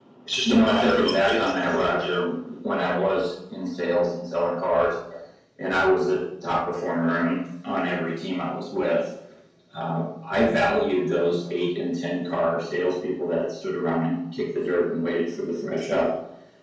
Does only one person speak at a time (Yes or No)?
No